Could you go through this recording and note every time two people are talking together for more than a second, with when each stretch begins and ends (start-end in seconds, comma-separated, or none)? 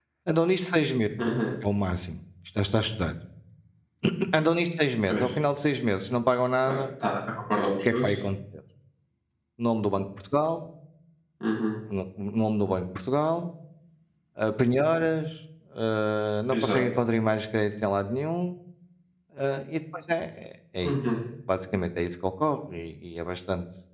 none